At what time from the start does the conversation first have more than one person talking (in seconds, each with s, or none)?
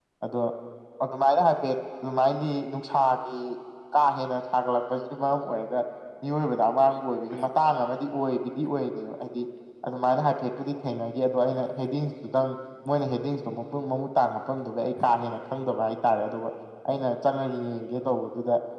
none